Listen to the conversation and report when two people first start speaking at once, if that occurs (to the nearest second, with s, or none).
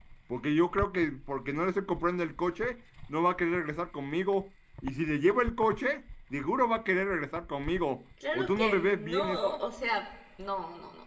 8 s